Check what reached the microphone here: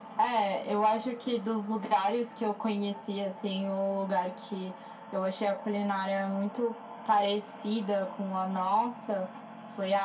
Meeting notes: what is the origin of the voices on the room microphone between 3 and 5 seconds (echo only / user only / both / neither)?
echo only